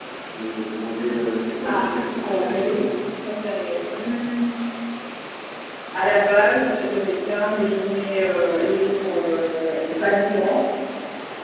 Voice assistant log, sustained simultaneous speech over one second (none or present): present